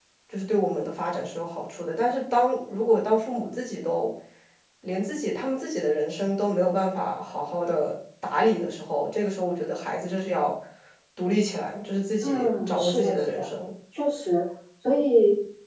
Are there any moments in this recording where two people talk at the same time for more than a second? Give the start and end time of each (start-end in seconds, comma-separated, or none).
12.2-13.5